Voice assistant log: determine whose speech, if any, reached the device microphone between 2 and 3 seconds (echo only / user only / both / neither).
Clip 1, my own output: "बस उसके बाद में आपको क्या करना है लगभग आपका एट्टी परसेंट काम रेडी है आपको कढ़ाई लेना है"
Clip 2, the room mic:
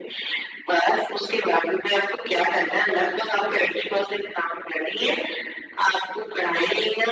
echo only